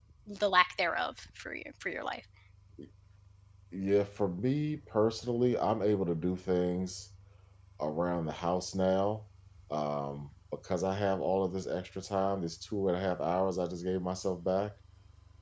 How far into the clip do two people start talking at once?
none

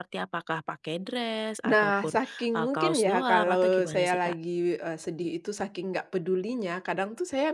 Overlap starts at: 2 s

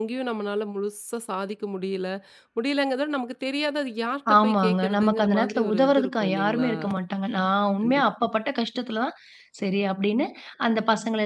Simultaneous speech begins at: 4 s

